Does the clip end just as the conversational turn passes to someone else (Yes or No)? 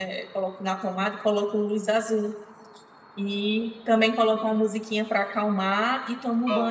No